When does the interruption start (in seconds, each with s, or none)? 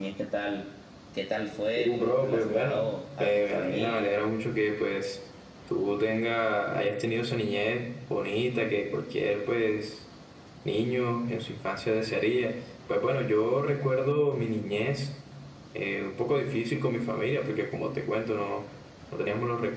1.8 s